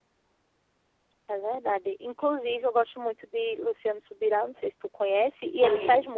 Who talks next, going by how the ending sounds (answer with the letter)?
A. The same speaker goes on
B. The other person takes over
A